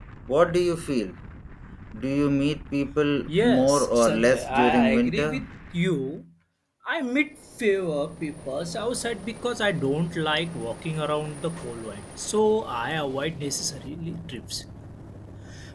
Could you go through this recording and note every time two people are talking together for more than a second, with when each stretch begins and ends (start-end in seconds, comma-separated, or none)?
3.3-5.4